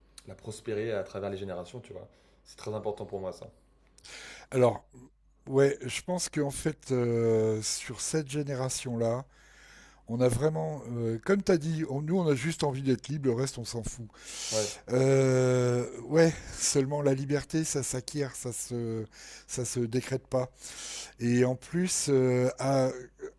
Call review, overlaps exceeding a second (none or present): none